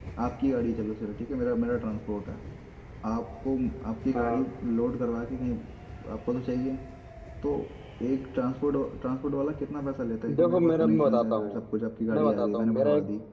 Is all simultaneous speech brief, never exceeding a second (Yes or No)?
No